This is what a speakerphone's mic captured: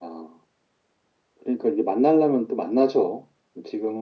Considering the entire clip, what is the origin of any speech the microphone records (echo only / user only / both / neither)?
echo only